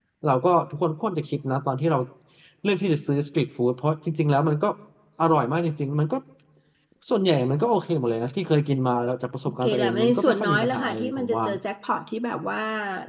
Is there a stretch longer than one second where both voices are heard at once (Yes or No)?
Yes